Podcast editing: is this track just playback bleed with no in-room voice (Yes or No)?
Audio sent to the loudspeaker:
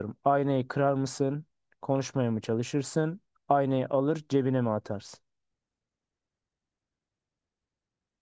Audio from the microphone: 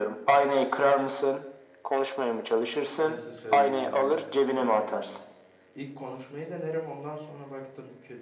No